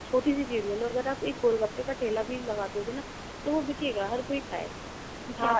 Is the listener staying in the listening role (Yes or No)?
No